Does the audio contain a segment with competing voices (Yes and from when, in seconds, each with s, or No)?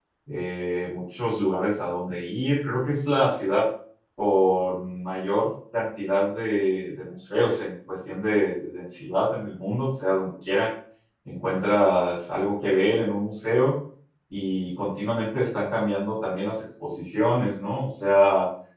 No